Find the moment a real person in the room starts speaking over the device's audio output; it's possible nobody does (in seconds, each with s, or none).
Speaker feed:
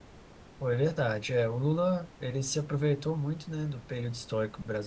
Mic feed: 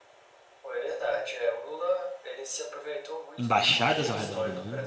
3.4 s